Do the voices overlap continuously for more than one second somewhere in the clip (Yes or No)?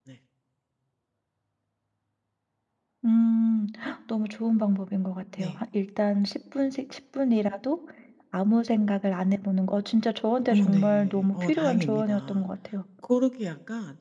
Yes